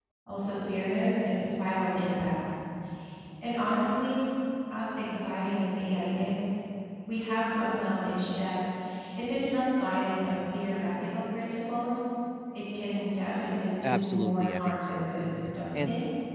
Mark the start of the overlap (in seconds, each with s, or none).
13.8 s